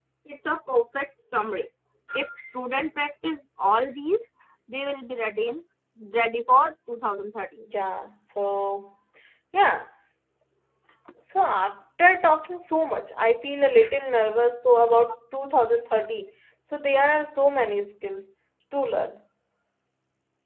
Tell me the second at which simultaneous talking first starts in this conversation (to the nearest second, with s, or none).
none